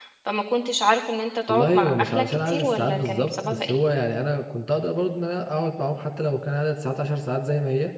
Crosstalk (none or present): present